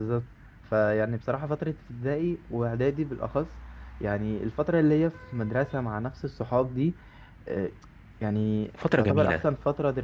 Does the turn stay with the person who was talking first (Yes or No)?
Yes